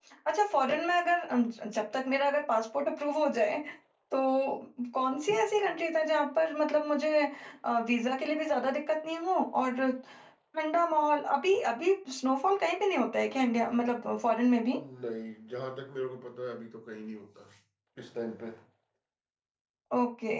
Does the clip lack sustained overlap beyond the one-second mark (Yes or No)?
Yes